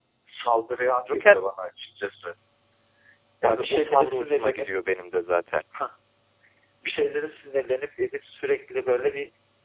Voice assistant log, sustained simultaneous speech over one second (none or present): present